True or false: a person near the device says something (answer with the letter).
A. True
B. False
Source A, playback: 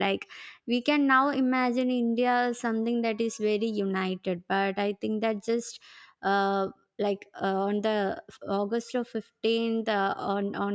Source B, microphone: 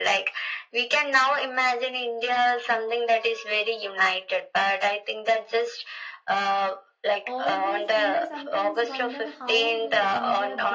A